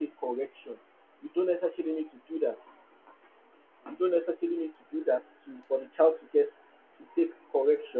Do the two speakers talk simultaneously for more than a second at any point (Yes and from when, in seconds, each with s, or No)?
No